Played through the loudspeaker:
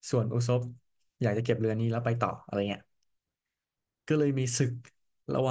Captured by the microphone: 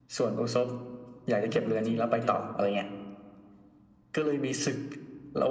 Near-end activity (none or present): present